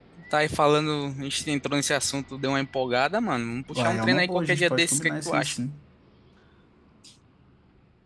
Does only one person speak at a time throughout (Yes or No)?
No